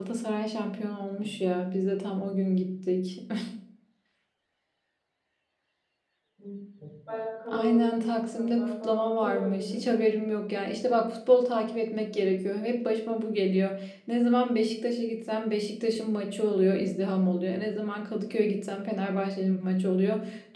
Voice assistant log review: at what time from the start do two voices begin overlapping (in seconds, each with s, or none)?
7.5 s